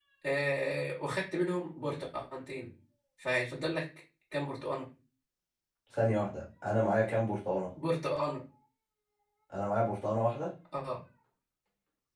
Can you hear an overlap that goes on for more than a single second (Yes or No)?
No